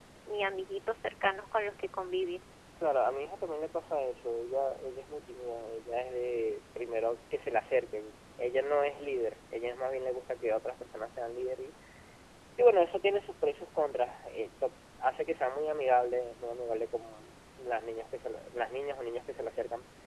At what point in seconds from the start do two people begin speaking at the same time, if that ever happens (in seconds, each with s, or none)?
none